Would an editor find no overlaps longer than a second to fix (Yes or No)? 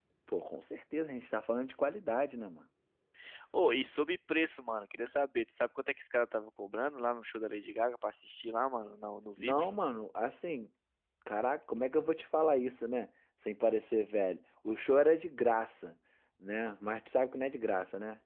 Yes